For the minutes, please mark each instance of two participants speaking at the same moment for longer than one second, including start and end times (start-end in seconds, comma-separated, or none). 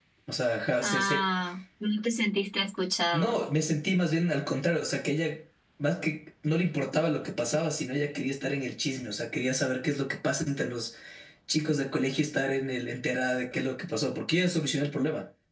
none